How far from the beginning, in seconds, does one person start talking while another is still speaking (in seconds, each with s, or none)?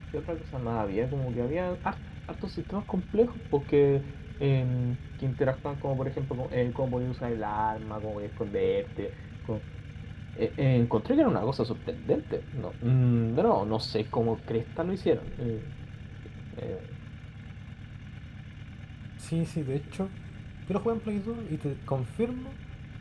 none